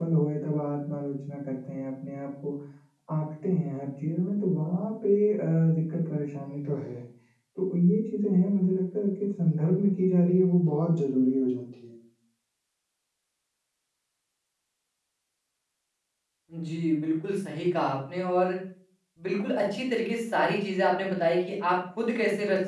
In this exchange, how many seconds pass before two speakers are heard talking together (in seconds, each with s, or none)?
none